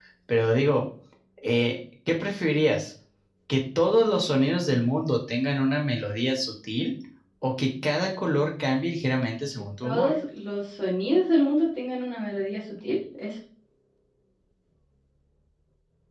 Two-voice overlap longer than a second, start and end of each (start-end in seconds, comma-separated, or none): none